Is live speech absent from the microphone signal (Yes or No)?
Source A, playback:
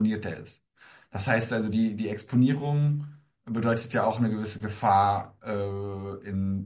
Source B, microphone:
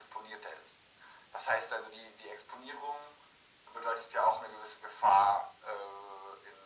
Yes